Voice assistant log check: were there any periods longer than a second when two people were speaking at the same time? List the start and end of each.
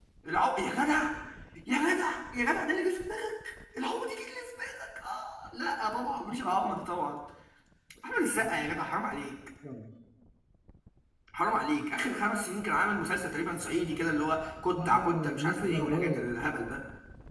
14.8-16.3

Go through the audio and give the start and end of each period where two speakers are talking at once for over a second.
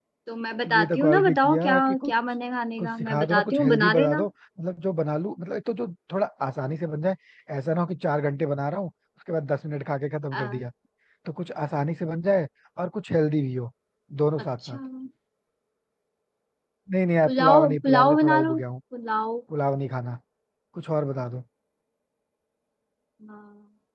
0.6-2.1, 2.8-4.2, 17.2-18.6

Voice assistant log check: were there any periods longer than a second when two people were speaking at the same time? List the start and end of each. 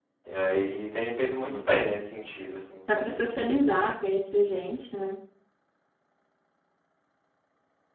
none

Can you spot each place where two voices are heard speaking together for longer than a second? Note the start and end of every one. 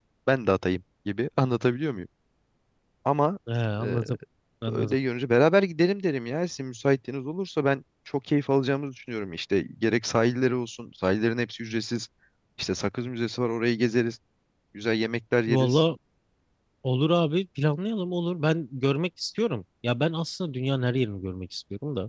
none

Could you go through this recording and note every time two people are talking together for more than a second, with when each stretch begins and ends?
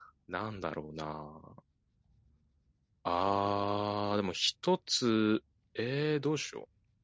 none

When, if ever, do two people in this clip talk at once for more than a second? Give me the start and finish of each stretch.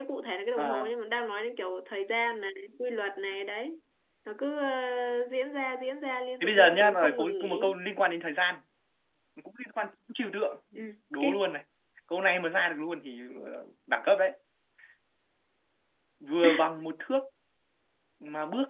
6.4-7.7

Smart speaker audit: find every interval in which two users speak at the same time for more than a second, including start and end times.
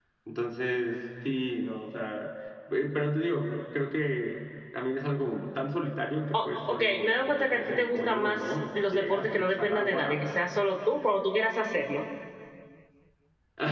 6.4-10.3

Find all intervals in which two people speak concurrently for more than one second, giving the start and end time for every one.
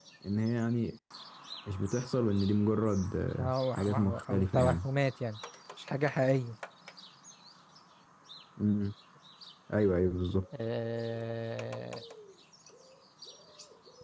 3.4-4.9

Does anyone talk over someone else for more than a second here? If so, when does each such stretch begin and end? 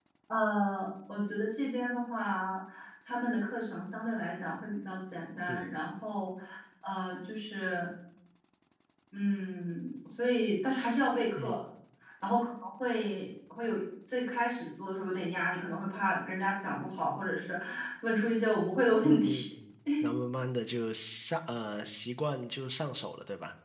none

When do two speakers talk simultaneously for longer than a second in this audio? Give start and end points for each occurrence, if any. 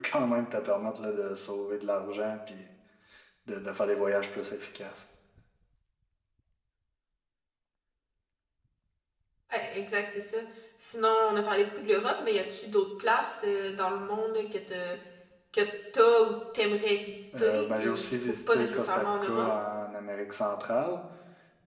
17.4-19.5

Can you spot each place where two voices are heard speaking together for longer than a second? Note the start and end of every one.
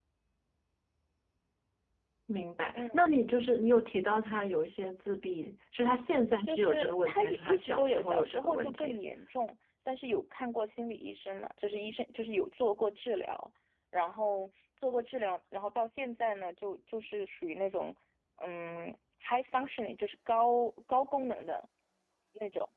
6.4-9.0

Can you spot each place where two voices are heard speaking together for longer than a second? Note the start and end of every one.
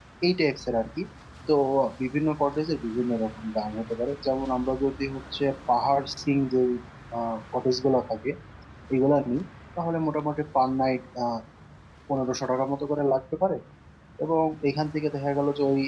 none

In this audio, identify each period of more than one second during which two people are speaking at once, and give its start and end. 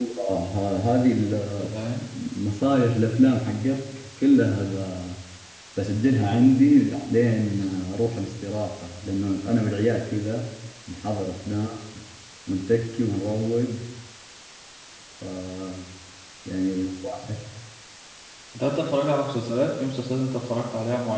none

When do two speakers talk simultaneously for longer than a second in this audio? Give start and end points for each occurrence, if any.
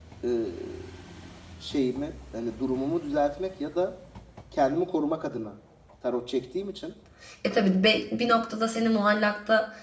none

